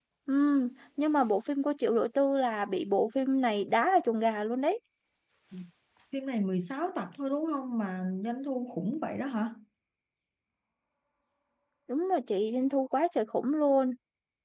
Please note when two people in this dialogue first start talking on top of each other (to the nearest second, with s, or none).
none